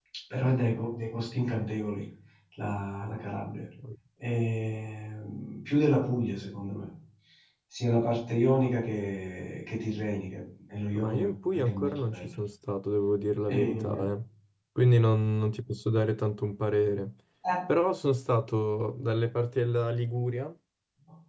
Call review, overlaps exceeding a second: present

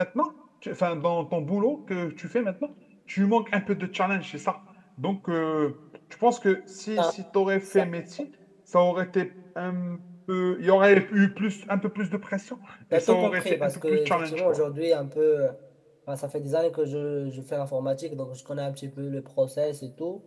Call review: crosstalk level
present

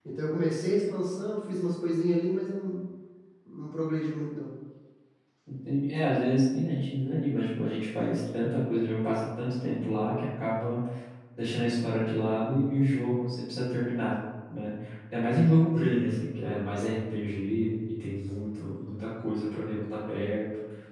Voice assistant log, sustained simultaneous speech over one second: none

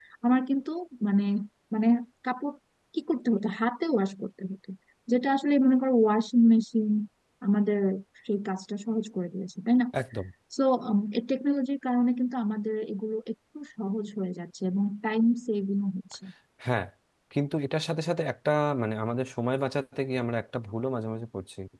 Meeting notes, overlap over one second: none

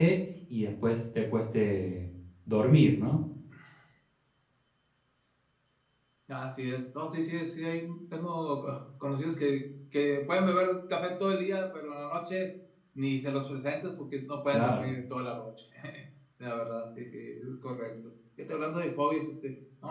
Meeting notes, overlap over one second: none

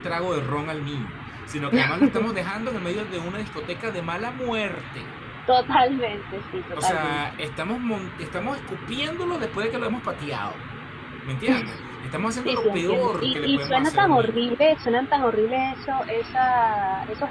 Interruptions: present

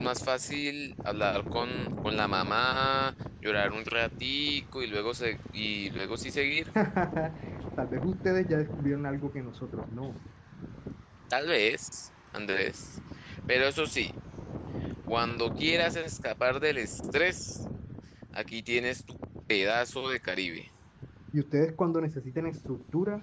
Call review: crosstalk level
none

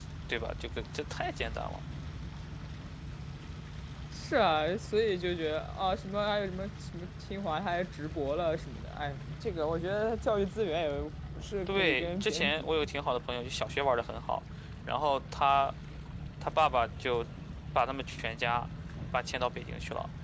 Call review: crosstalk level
present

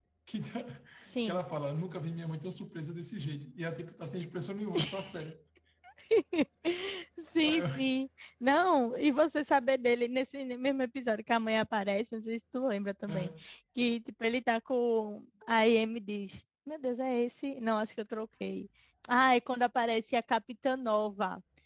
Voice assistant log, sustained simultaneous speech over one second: none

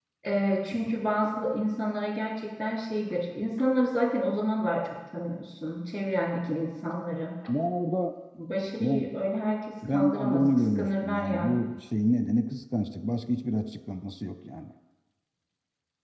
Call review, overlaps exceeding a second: present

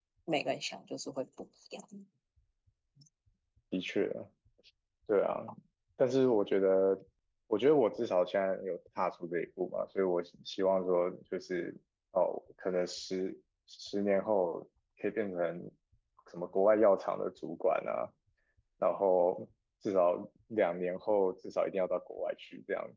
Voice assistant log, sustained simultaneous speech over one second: none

